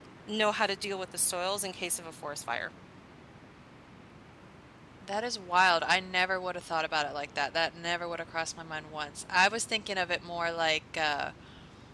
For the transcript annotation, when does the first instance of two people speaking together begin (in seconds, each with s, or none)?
none